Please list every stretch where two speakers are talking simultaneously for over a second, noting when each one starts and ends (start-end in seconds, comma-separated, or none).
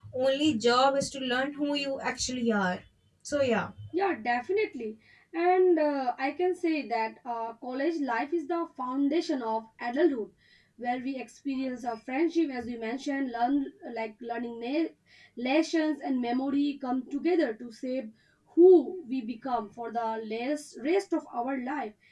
none